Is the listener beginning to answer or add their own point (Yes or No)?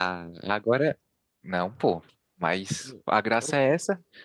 No